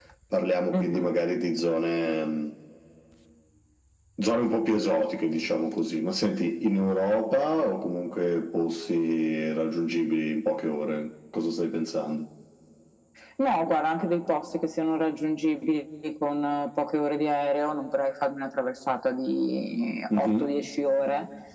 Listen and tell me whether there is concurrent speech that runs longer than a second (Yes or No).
No